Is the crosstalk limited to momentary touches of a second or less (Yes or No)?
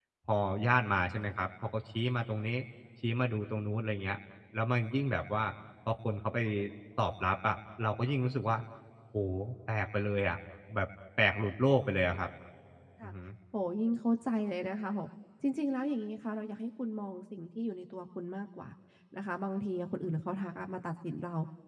Yes